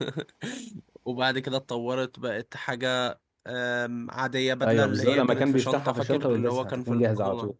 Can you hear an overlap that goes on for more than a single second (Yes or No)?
Yes